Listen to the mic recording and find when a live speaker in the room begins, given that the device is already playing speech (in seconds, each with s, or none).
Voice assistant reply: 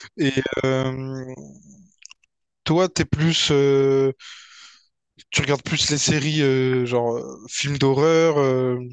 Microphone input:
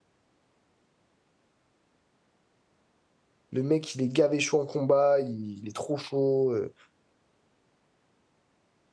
3.5 s